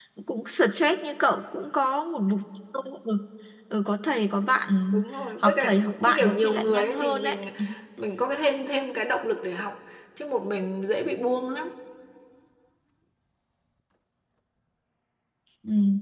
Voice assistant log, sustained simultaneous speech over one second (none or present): present